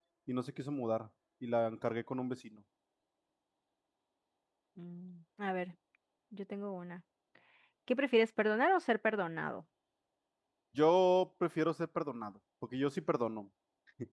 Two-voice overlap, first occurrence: none

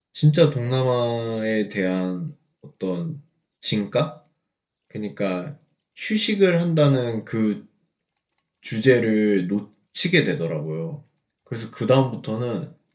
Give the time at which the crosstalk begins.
none

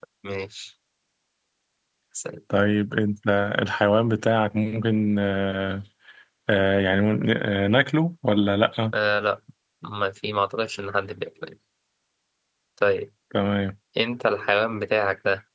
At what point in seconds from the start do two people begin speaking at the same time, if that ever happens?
none

